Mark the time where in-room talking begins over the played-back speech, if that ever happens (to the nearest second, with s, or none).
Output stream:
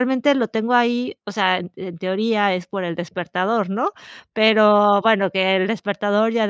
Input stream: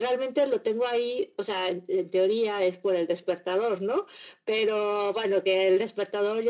none